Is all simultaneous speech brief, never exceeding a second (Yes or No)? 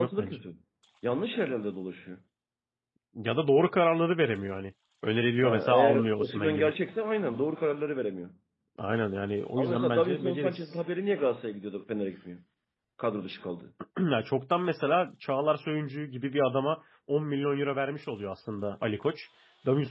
No